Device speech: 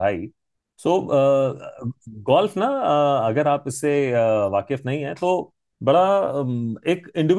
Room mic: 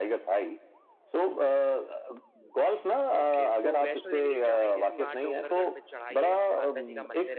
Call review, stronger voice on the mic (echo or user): echo